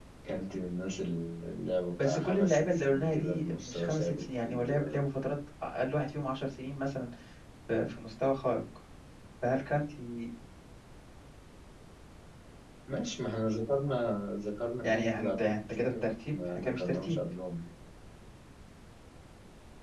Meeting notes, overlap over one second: present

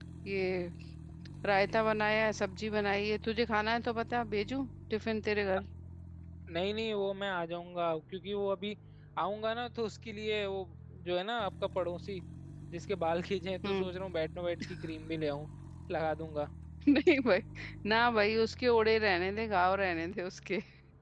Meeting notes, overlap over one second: none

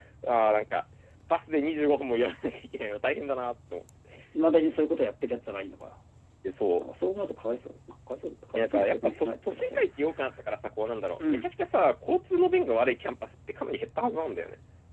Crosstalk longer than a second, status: present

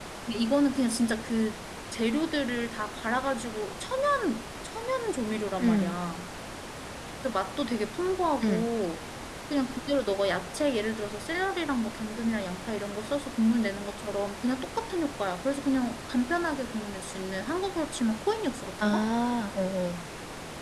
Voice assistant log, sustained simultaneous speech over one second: none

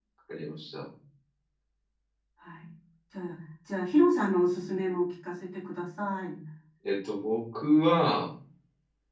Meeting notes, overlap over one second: none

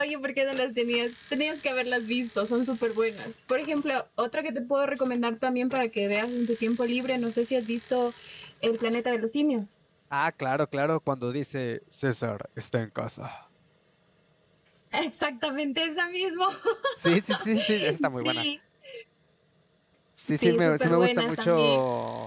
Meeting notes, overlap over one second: present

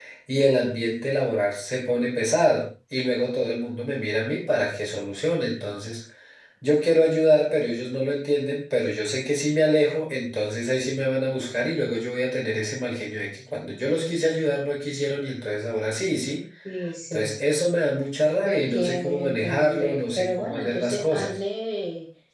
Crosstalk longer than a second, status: present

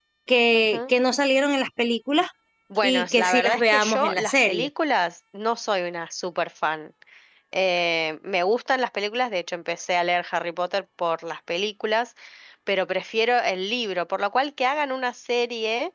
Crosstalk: present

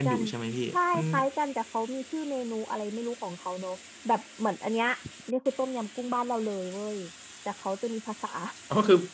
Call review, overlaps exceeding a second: none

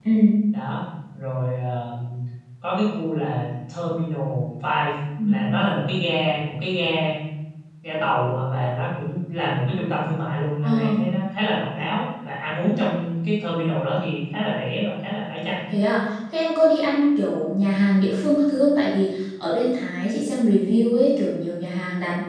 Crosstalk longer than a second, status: none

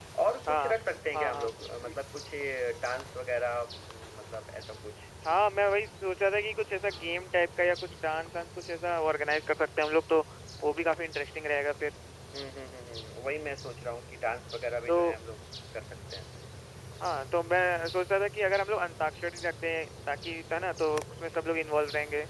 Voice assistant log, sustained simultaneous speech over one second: none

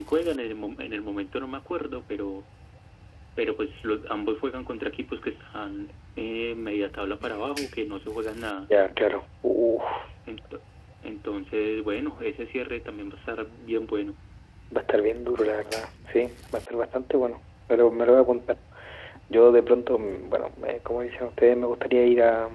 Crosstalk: none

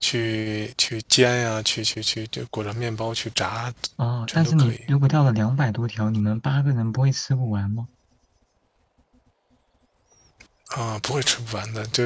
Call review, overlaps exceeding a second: none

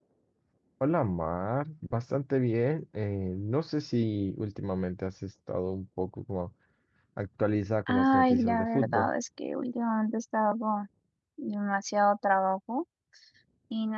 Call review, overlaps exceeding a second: present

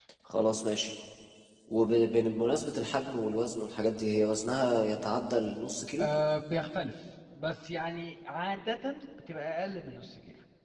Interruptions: none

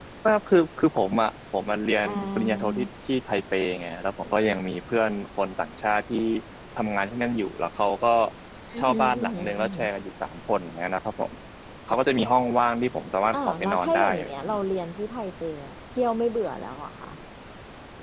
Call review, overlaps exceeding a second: present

